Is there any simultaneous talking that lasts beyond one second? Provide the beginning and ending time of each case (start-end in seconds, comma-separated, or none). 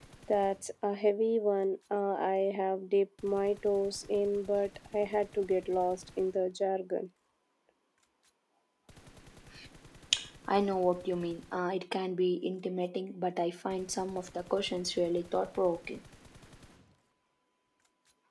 none